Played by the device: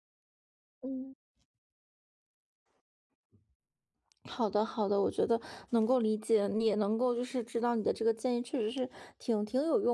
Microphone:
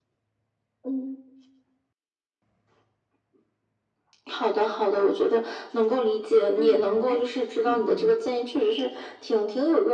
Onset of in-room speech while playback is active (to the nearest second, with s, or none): 7 s